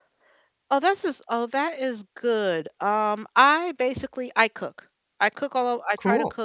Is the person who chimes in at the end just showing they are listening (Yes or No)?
Yes